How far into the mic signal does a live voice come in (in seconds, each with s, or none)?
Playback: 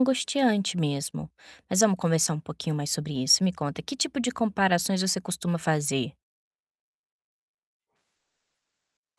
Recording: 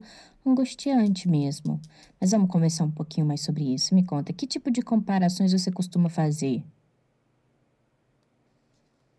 none